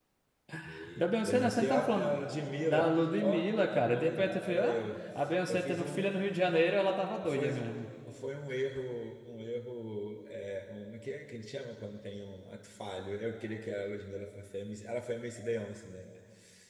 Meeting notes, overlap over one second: present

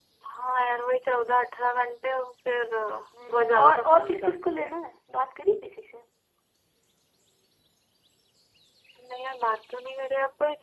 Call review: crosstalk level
present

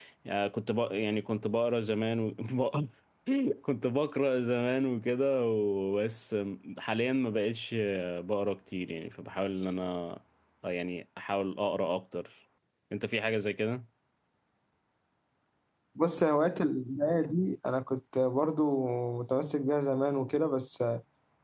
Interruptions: none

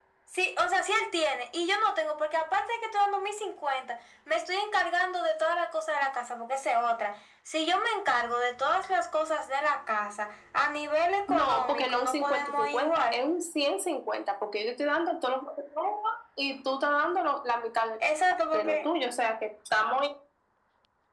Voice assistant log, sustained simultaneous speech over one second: present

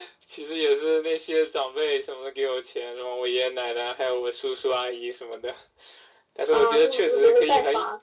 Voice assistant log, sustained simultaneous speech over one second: present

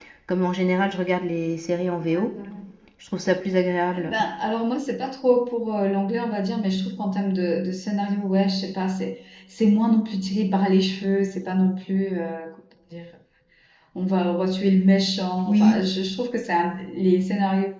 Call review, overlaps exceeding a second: none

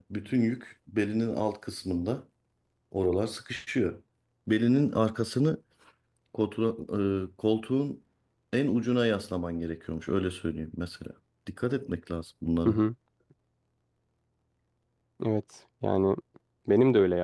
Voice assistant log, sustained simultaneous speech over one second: none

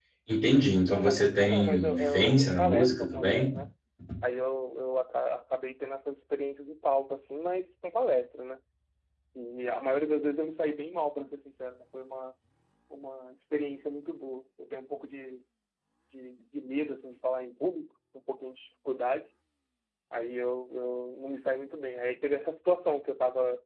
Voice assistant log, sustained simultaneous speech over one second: present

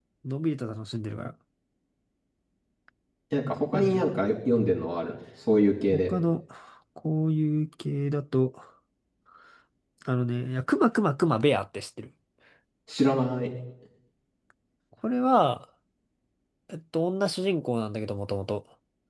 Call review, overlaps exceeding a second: none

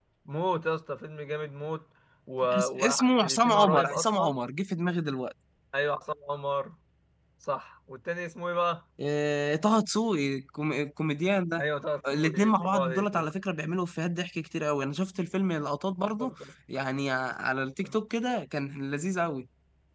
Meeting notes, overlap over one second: present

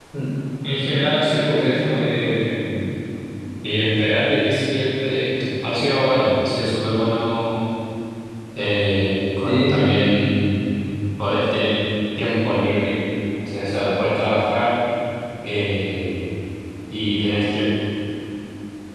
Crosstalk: present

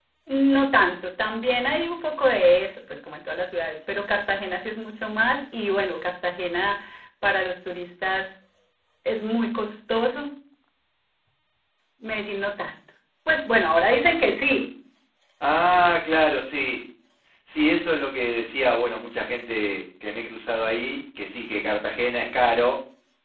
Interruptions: none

